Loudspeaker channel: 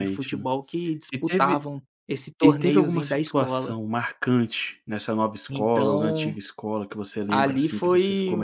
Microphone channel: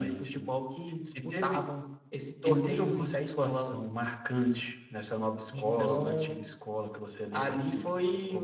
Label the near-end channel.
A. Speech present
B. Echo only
B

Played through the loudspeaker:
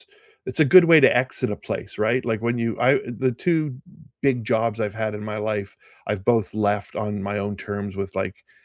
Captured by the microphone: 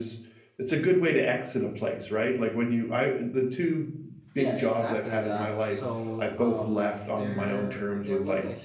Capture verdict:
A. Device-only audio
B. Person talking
B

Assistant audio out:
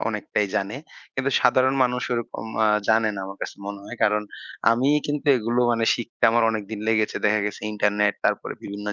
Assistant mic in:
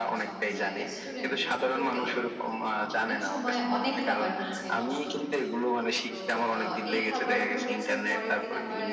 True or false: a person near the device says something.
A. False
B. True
B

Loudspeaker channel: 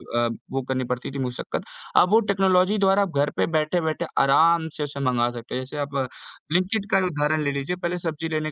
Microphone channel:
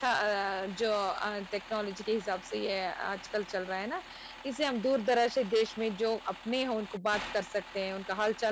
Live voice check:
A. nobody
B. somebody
B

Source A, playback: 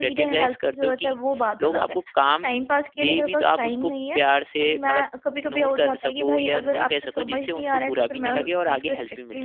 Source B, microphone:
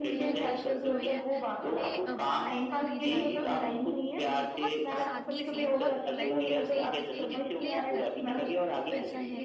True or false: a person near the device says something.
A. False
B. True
B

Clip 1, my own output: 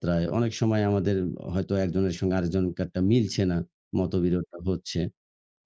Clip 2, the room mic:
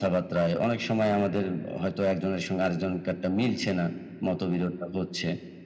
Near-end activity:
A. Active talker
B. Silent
B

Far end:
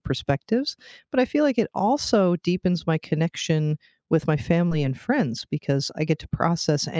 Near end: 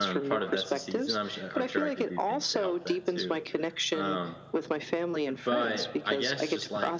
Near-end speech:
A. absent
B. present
B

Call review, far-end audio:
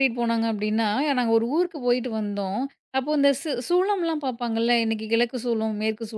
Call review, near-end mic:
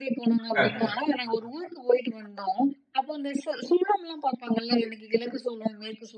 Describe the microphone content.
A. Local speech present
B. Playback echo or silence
A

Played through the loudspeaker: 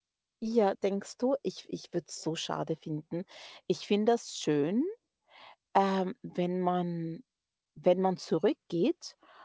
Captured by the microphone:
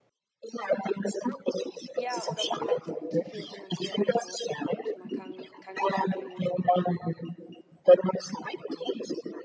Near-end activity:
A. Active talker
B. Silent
A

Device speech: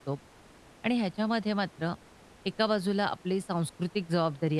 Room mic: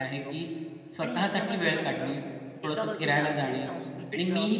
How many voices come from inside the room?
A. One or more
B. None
A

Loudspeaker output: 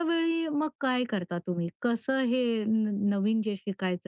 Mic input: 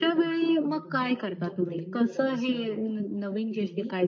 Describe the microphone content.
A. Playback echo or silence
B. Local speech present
B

